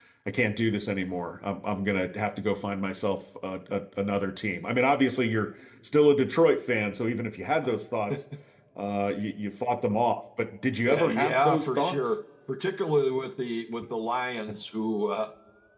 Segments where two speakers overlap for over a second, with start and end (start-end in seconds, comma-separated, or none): 10.9-12.2